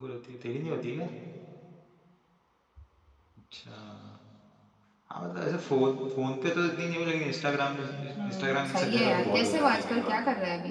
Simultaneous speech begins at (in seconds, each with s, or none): 8.2 s